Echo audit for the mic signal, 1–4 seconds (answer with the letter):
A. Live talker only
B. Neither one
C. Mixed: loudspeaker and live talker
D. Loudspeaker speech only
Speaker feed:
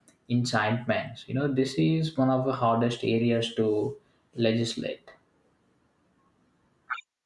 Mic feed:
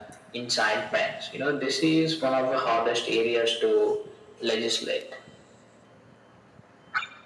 D